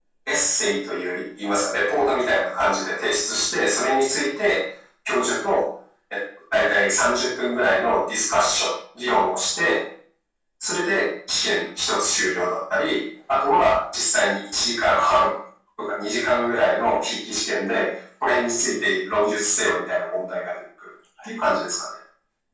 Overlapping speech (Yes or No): No